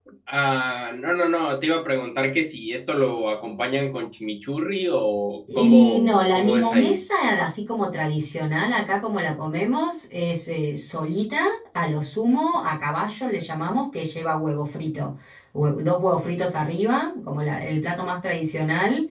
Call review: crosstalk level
present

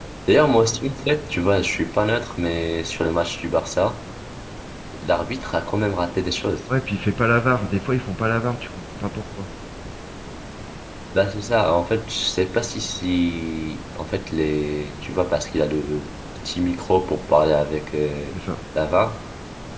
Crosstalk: none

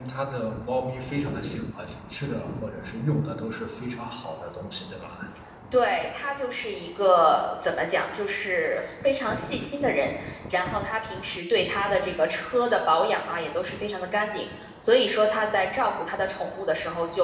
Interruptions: none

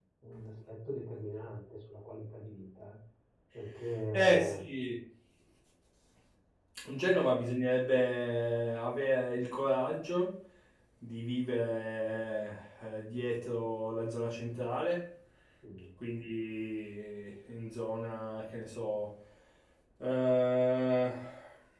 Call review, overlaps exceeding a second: none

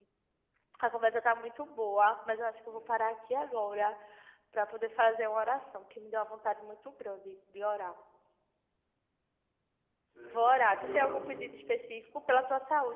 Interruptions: present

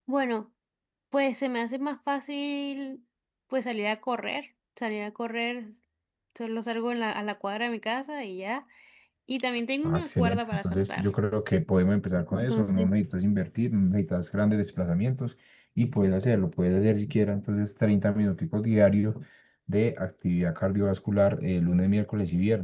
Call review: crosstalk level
present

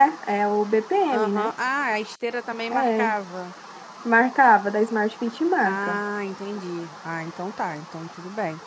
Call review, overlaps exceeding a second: none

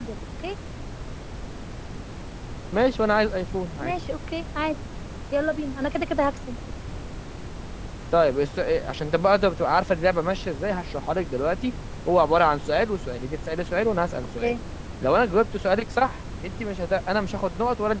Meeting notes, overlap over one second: none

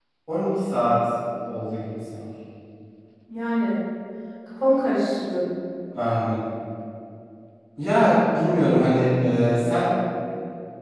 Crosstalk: none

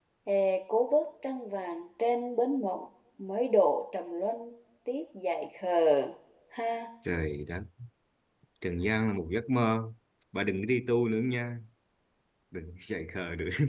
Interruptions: none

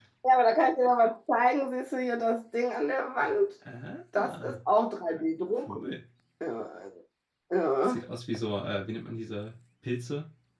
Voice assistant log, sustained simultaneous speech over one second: none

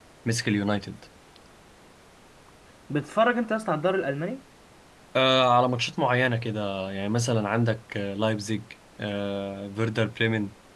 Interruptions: none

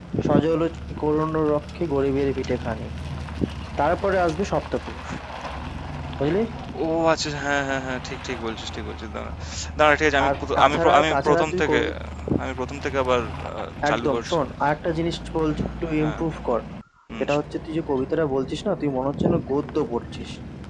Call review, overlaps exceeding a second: present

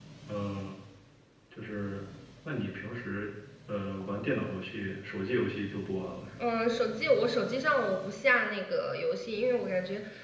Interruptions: none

